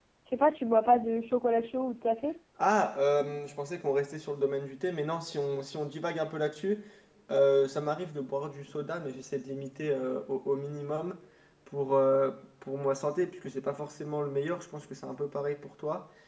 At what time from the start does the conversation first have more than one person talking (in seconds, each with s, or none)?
none